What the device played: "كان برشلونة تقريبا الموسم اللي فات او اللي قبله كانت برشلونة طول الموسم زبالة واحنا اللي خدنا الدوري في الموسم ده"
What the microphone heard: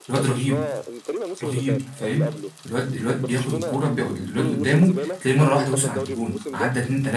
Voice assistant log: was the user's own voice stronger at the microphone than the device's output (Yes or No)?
Yes